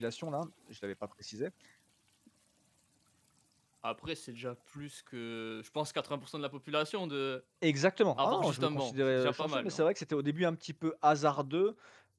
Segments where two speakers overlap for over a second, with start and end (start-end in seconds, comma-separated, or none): 8.2-9.8